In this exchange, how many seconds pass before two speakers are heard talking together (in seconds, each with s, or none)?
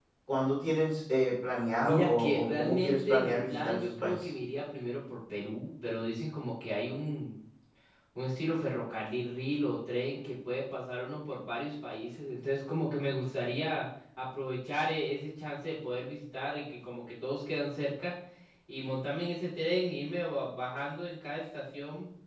1.8 s